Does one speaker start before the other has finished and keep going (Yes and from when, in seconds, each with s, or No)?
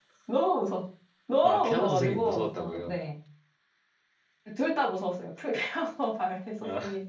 Yes, from 1.4 s